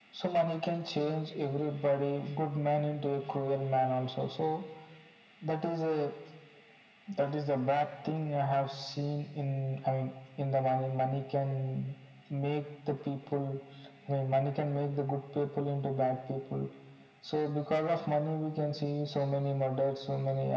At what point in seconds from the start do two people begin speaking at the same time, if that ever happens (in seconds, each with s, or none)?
none